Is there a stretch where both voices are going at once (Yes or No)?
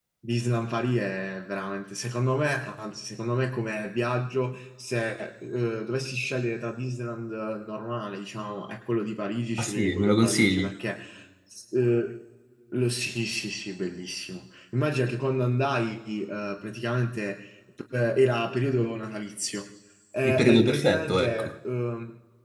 Yes